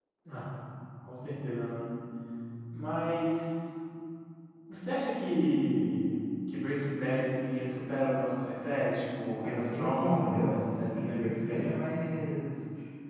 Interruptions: present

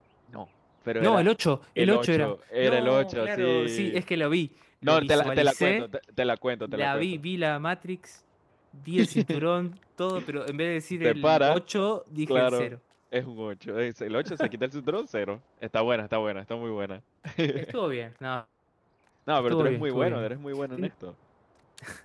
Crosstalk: present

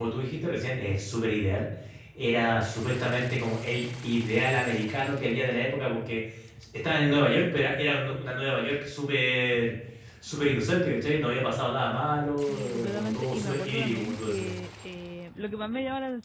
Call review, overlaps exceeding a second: present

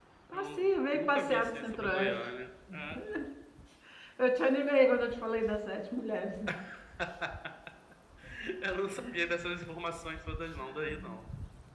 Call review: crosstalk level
present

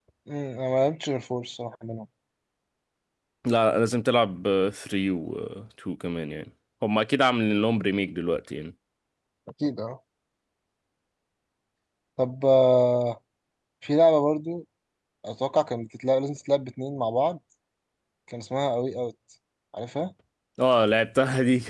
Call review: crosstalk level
none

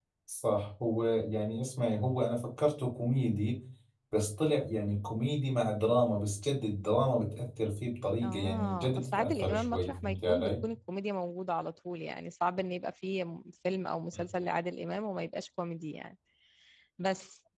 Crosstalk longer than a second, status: present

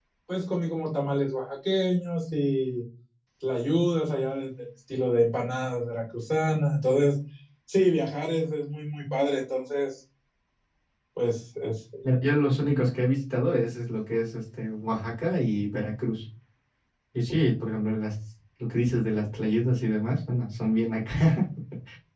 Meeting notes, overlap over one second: none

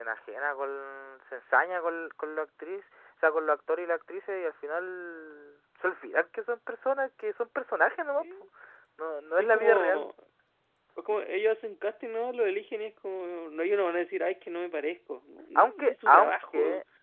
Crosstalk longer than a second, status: present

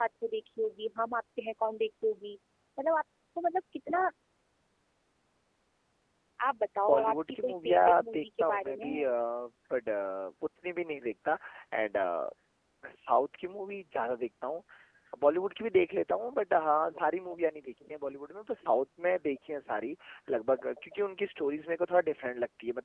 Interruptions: present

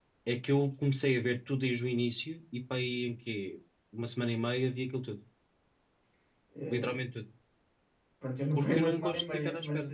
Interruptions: present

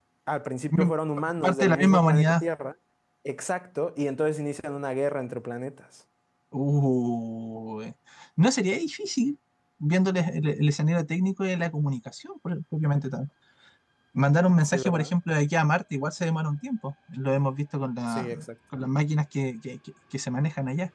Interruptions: present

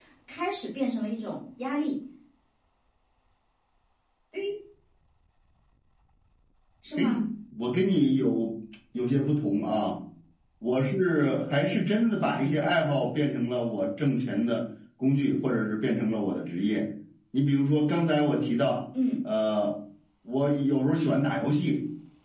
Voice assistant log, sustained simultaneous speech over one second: none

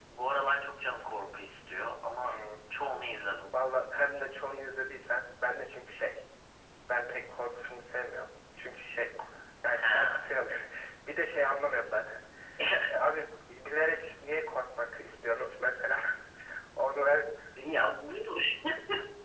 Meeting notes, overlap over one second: none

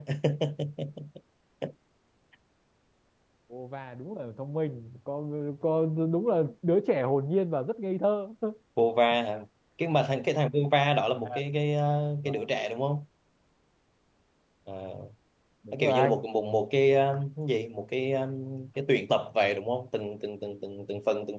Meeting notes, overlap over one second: none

